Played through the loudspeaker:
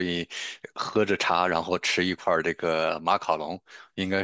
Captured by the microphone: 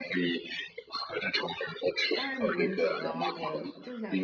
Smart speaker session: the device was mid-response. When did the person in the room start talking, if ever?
2 s

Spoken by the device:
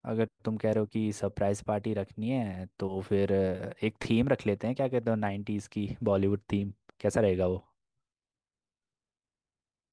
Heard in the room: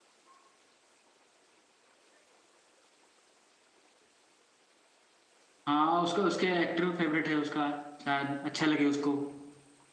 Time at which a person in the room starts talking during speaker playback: 6 s

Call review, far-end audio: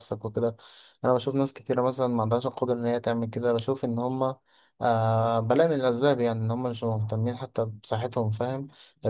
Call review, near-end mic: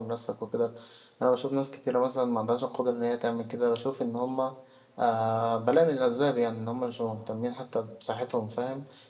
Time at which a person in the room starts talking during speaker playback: none

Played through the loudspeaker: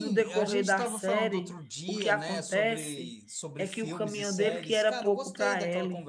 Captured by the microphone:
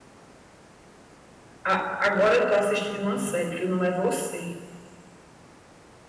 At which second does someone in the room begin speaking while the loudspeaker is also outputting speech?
2 s

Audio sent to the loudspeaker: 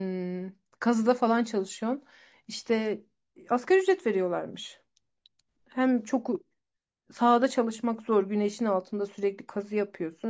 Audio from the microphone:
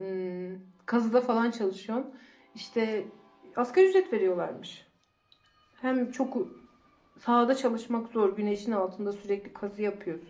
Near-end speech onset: none

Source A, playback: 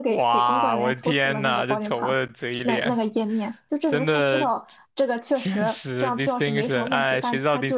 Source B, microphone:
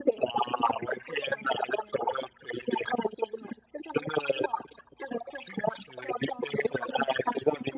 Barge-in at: none

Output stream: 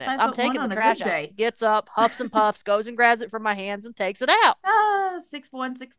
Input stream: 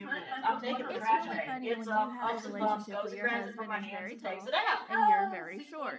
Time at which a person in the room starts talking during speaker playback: 1 s

